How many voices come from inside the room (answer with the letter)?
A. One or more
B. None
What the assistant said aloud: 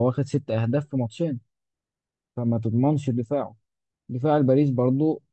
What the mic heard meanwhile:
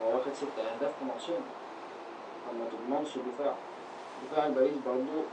B